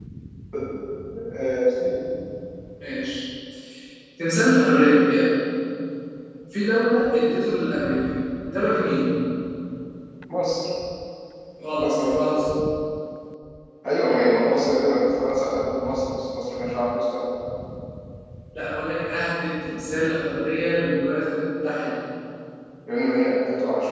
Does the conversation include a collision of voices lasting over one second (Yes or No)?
No